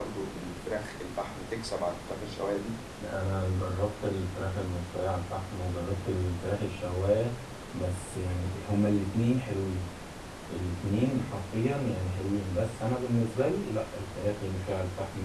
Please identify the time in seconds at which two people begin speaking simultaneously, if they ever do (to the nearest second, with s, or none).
none